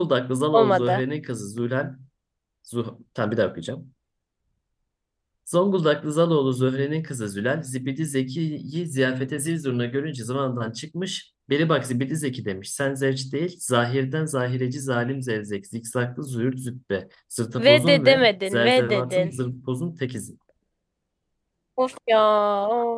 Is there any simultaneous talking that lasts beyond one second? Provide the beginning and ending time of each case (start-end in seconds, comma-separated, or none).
17.6-19.3